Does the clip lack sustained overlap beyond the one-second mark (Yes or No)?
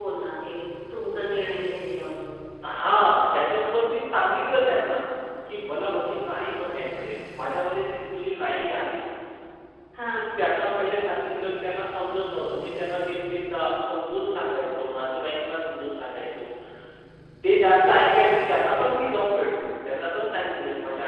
Yes